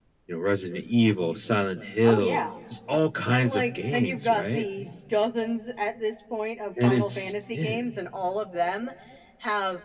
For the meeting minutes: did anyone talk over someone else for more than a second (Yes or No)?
Yes